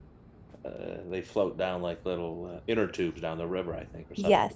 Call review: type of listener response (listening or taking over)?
listening